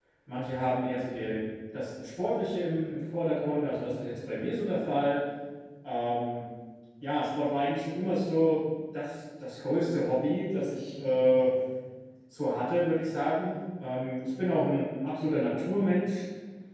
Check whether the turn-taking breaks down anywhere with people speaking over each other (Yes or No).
No